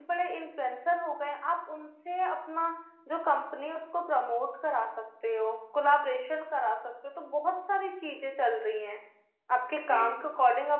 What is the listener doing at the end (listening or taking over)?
listening